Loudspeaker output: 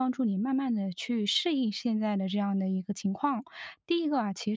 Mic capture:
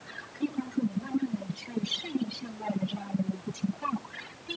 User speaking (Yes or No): No